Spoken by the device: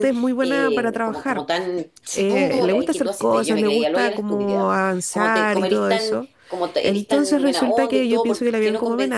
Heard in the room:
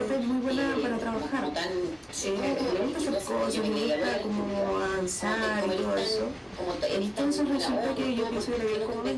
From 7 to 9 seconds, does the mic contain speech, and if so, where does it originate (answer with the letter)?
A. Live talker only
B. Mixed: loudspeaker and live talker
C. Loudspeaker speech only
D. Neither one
C